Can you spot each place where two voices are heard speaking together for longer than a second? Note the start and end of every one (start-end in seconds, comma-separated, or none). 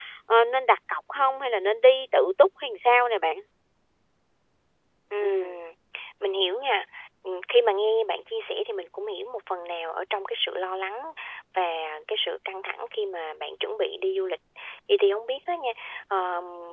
none